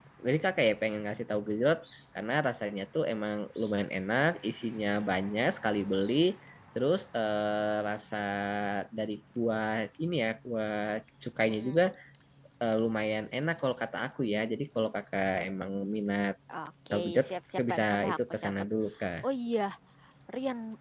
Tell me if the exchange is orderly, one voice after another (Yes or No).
No